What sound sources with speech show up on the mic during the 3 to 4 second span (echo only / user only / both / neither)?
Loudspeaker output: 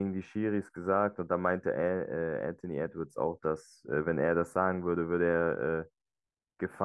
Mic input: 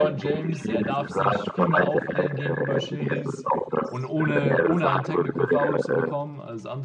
both